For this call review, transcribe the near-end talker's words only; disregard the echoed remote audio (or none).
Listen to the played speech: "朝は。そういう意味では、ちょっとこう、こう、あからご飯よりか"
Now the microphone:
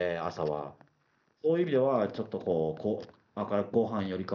none